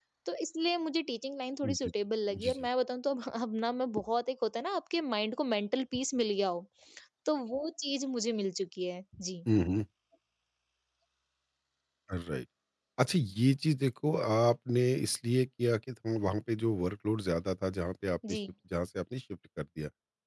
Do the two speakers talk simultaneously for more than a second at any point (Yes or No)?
No